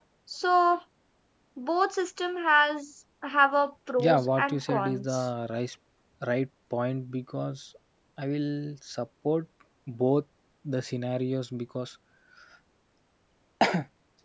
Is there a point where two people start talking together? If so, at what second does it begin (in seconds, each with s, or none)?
4.0 s